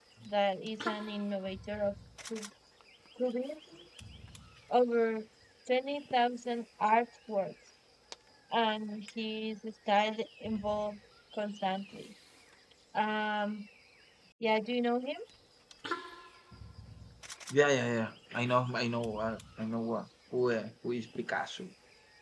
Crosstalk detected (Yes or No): No